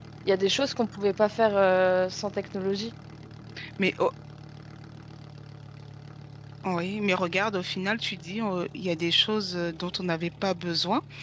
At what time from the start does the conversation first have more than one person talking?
none

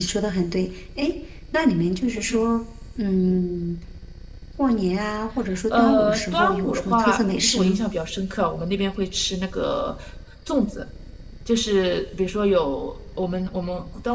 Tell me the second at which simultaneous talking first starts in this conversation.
5.7 s

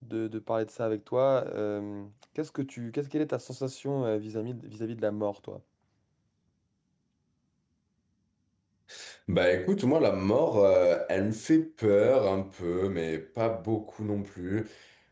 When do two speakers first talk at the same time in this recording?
none

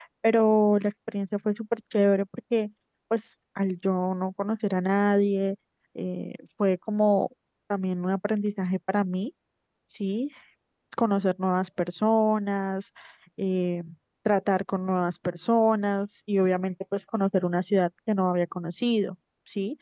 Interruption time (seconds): none

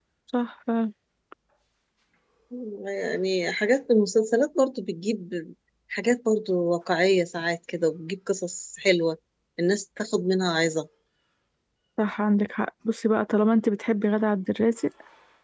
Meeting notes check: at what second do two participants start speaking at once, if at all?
none

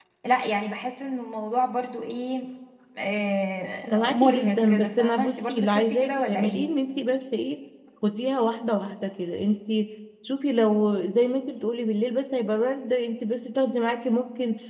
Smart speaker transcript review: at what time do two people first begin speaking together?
3.9 s

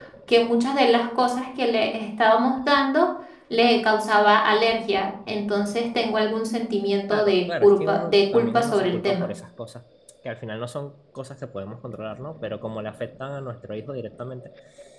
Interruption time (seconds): 7.1 s

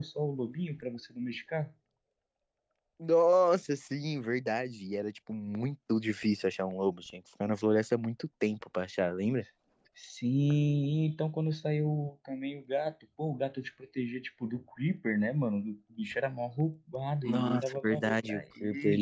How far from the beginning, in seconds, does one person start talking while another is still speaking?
17.2 s

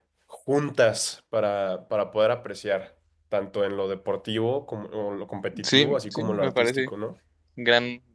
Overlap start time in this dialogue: 5.5 s

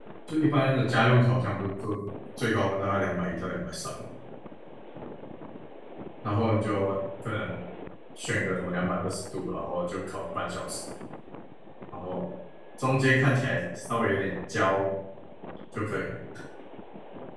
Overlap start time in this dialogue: none

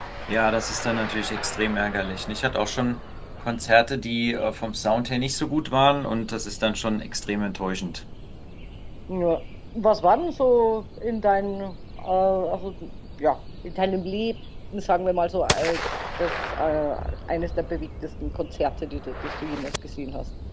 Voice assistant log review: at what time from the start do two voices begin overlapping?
none

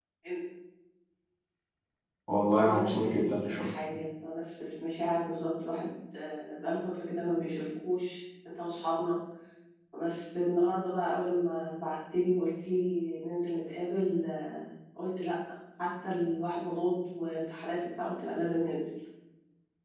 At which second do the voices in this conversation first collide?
2.5 s

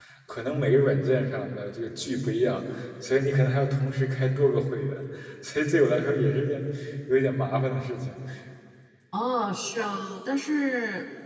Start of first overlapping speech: none

